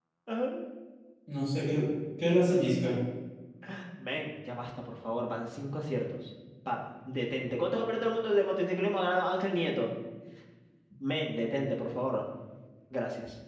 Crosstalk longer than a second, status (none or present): none